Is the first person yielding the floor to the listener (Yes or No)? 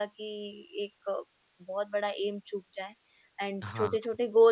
No